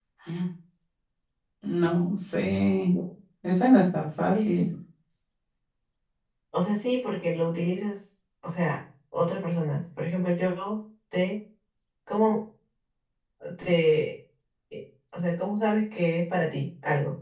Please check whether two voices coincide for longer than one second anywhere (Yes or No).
No